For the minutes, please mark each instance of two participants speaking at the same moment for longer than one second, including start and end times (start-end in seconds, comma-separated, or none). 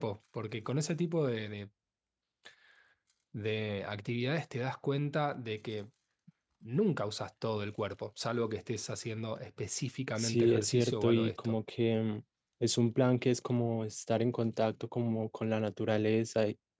10.2-11.6